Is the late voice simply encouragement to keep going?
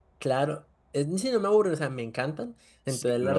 Yes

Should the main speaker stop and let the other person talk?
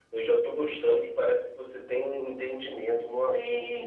Yes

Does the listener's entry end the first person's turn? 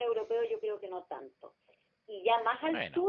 No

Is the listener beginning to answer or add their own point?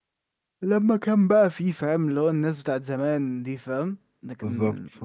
Yes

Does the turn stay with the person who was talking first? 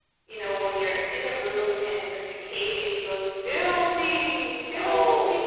No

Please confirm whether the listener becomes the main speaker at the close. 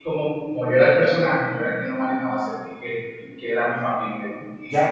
Yes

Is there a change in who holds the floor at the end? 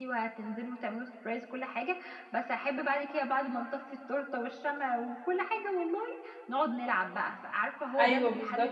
Yes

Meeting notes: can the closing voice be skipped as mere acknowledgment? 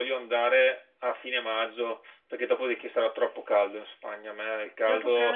No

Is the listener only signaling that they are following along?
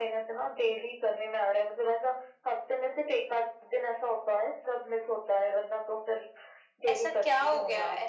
No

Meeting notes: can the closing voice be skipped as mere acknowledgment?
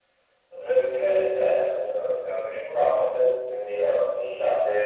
Yes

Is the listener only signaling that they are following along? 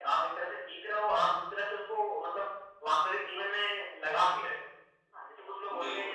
Yes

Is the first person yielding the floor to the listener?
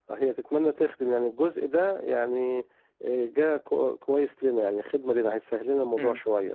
Yes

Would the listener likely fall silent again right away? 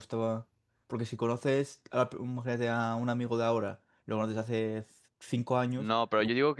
No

